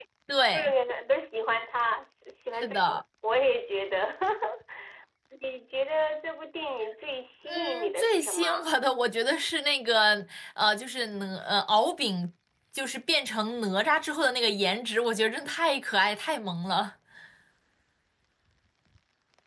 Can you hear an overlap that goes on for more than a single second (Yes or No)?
Yes